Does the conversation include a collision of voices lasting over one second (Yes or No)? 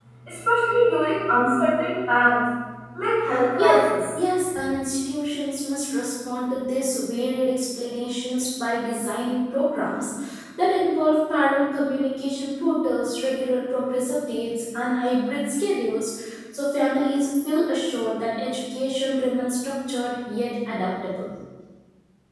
No